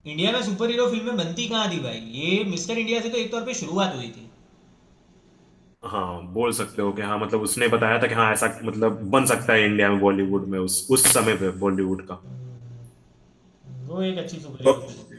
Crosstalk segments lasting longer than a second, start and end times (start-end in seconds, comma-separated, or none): none